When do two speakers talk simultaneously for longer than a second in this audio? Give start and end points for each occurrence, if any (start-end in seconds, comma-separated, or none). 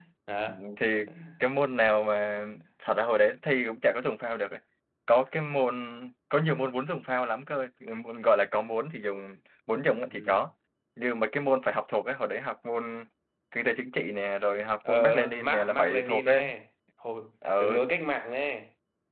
14.9-16.5